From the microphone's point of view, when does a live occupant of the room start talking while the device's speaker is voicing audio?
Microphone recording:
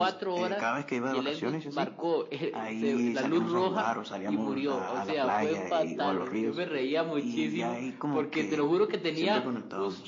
none

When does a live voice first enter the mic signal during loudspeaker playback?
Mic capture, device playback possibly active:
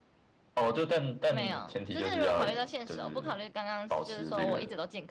1.3 s

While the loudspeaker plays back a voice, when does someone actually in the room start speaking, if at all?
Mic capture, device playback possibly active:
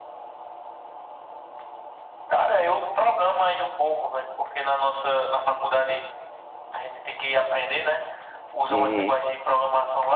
8.7 s

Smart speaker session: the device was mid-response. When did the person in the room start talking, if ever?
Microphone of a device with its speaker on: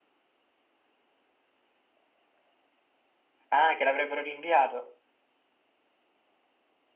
3.5 s

